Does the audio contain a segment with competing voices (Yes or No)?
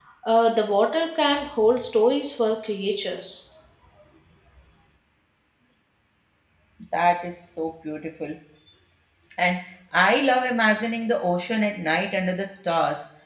No